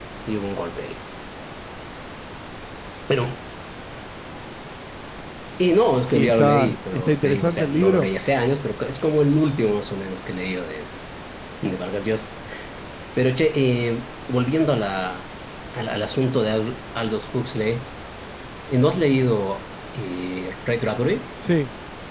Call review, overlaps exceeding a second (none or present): present